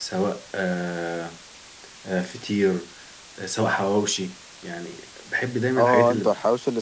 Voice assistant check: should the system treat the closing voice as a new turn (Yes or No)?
Yes